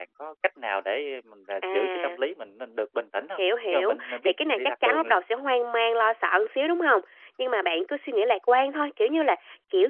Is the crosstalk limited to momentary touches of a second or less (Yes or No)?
No